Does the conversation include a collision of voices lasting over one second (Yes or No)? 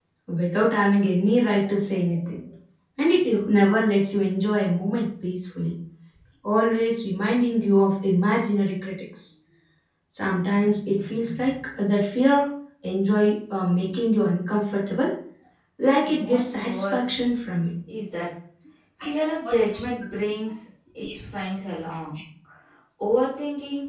Yes